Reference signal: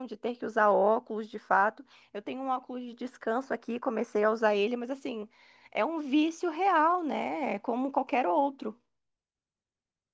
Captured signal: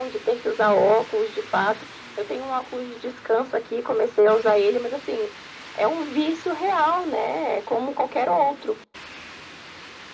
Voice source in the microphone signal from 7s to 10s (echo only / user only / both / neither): echo only